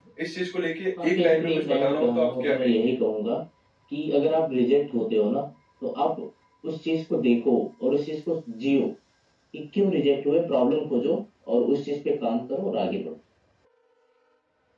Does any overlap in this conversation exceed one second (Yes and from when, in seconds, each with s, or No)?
Yes, from 1.0 s